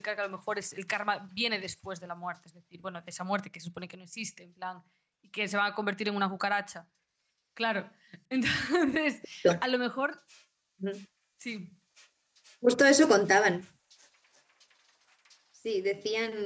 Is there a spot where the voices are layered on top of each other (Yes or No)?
No